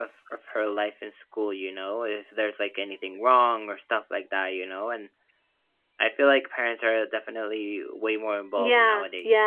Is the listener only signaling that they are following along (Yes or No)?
No